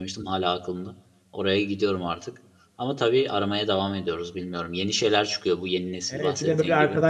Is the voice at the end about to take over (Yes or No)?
Yes